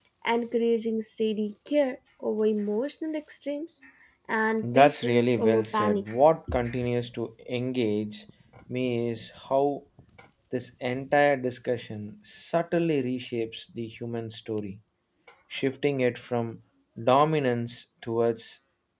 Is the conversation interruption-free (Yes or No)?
No